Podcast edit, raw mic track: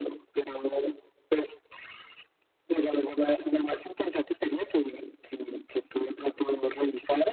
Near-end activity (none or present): none